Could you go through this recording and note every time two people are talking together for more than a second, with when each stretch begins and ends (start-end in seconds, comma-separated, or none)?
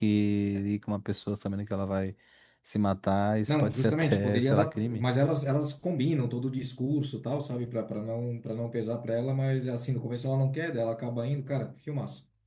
3.5-5.0